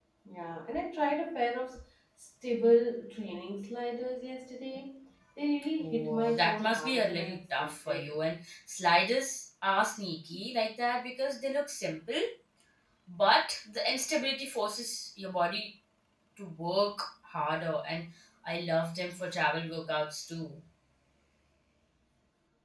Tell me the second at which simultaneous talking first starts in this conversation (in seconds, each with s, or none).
5.8 s